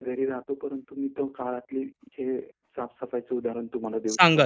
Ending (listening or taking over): taking over